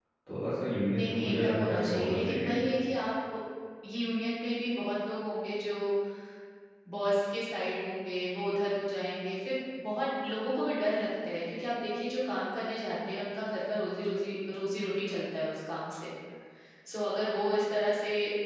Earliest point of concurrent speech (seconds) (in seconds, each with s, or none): 1.0 s